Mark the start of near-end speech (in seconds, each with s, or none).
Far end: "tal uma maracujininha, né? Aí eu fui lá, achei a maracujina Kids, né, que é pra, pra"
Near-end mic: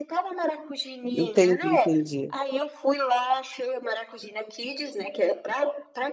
1.1 s